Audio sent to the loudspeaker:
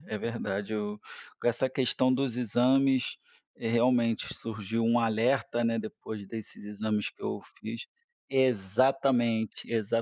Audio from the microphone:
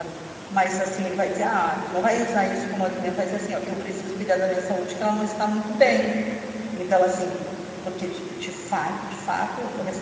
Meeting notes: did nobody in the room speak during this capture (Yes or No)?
No